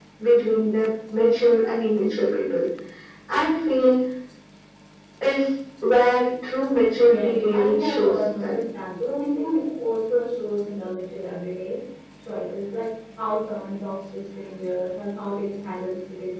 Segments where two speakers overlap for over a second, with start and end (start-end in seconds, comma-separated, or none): 7.0-8.6